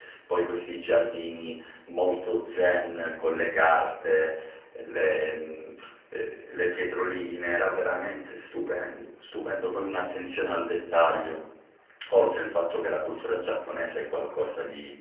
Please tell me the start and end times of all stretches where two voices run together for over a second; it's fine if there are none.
none

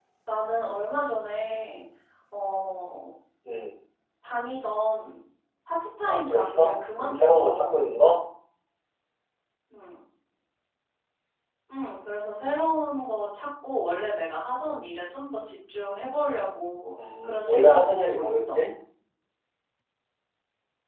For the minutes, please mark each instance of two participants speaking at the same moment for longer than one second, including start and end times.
6.0-7.8, 17.2-18.6

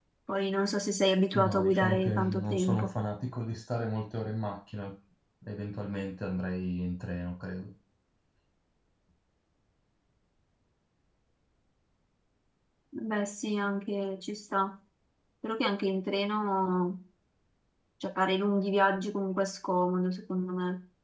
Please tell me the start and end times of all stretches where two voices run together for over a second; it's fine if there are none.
1.4-2.9

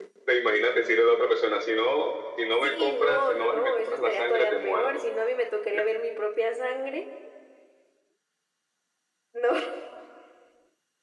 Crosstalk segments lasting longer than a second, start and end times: 2.6-5.1

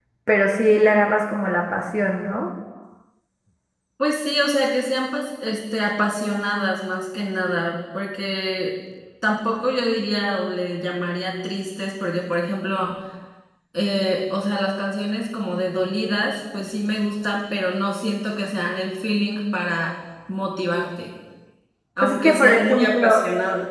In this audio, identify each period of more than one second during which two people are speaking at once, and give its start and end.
22.0-23.2

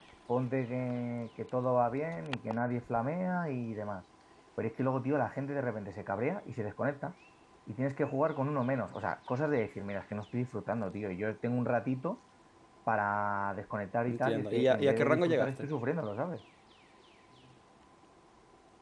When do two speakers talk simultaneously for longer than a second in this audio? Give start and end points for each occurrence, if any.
14.1-15.7

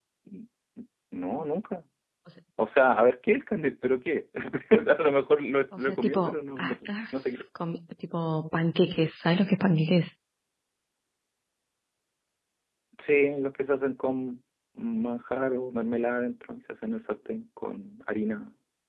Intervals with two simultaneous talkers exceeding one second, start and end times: 5.8-7.4

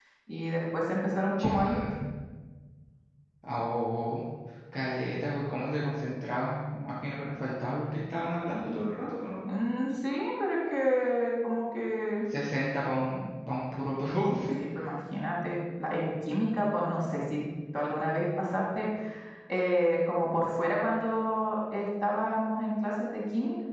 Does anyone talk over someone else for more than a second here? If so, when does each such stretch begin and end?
none

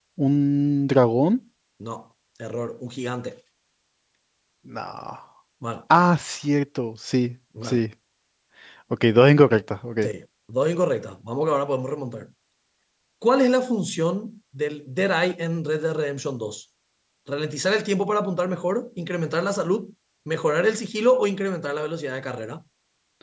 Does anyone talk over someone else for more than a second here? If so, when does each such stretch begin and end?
none

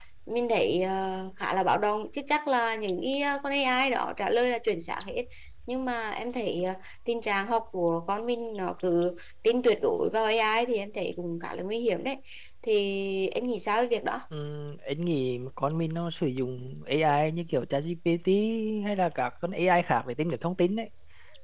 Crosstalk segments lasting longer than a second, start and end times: none

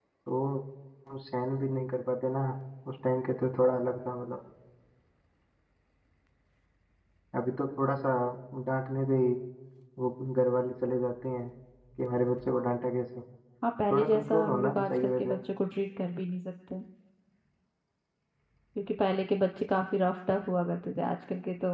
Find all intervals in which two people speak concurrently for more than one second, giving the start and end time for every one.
13.9-15.3

